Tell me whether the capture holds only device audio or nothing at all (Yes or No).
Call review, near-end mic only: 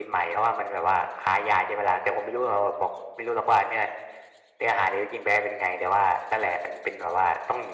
Yes